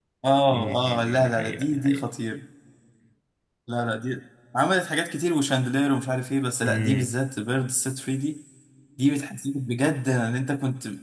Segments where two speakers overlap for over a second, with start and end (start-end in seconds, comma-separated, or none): 0.5-2.0